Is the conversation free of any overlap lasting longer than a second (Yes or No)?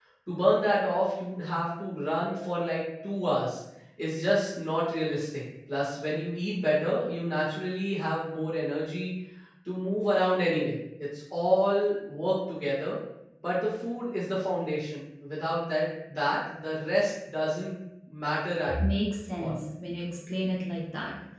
Yes